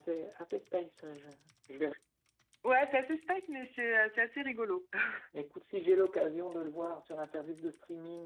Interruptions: none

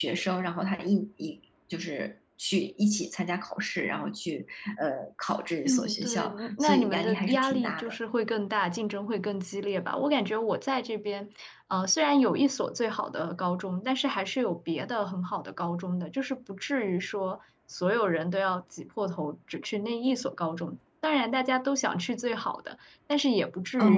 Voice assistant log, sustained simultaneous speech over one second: present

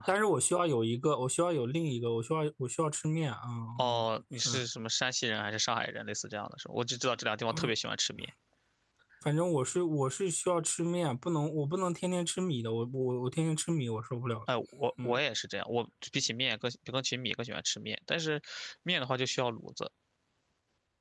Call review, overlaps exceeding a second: none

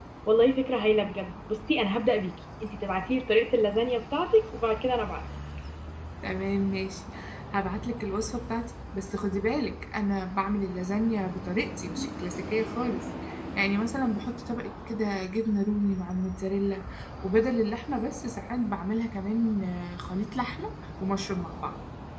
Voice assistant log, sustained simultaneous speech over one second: none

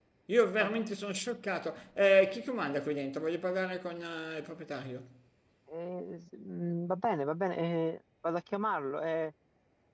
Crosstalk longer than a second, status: none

